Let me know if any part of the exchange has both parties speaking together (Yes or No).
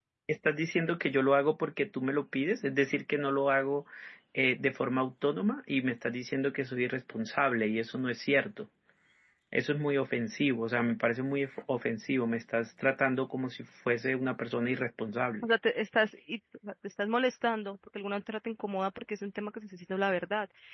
No